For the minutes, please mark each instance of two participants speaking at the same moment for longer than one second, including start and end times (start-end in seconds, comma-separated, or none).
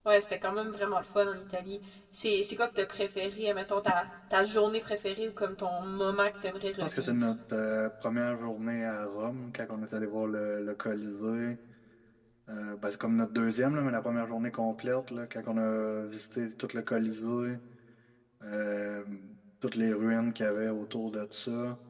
none